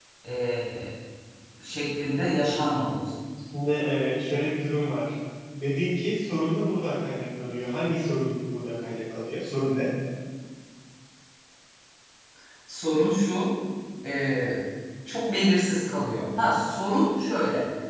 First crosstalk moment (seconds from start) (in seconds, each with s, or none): none